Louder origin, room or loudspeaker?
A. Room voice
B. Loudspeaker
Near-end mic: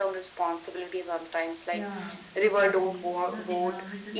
B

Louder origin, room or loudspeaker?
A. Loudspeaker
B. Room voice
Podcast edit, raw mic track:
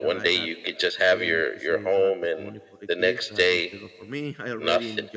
A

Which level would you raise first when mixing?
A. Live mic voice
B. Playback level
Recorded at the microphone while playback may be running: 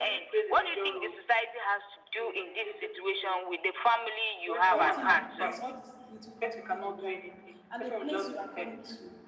A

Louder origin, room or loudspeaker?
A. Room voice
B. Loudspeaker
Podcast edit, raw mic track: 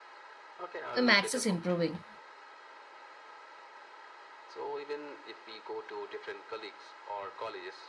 A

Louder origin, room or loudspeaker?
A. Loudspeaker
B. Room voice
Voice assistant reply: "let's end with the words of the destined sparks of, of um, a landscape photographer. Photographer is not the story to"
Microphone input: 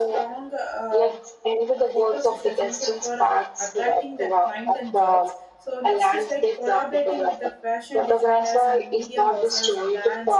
A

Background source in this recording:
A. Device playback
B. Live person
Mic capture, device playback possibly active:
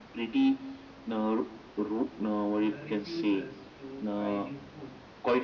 B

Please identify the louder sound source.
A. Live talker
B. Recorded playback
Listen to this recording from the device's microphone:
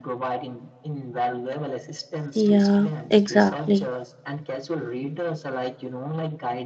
A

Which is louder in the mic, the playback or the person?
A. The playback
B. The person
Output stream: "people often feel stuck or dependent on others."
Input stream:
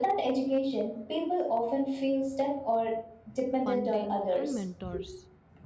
A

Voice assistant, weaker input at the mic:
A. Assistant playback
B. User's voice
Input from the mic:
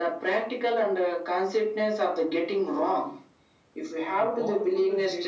B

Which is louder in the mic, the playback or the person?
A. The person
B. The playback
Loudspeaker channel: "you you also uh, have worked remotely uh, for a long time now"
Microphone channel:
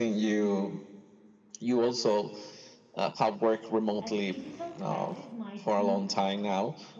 B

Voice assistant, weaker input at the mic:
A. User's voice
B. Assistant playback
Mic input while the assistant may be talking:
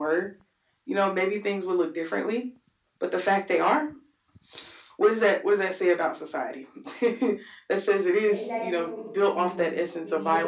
A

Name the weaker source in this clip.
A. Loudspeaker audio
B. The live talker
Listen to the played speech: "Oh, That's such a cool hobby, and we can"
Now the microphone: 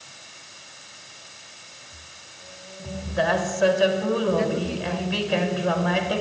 B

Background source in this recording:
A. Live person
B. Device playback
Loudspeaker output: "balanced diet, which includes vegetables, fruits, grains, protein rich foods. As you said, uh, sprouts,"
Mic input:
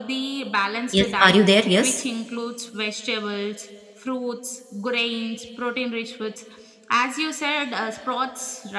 B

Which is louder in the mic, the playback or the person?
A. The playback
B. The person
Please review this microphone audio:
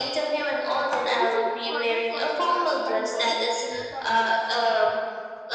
A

